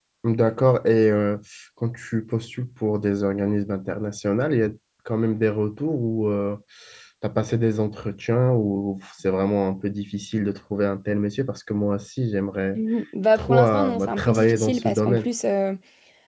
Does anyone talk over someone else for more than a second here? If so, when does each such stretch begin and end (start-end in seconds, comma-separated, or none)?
13.4-15.3